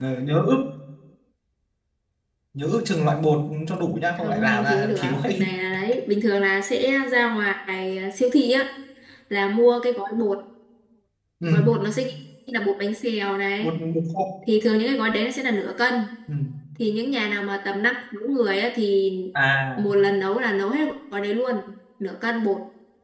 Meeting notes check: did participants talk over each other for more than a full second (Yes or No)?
Yes